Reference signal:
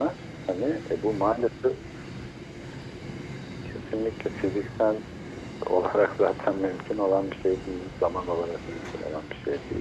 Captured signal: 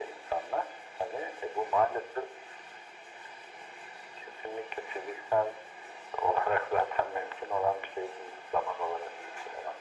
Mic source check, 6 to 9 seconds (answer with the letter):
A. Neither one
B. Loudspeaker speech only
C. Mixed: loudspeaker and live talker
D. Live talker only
B